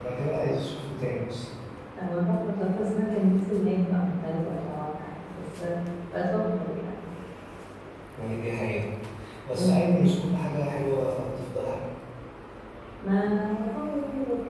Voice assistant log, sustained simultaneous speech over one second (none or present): none